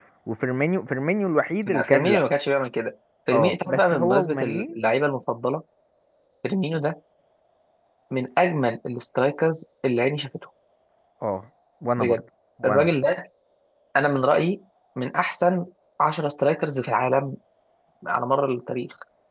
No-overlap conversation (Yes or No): No